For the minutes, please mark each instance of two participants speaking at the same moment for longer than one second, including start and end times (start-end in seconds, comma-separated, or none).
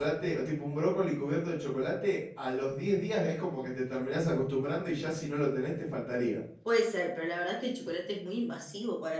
none